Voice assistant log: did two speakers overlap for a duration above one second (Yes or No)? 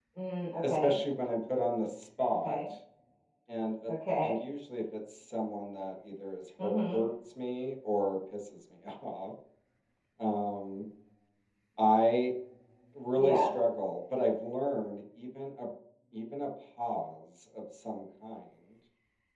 No